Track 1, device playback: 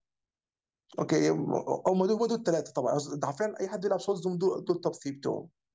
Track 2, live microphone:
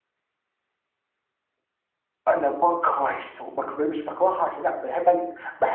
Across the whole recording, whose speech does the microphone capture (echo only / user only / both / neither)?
user only